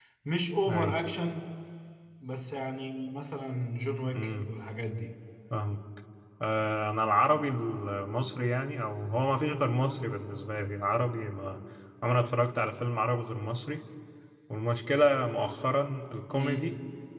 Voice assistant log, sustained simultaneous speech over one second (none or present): none